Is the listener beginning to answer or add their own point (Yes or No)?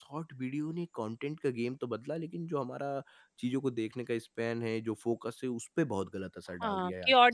Yes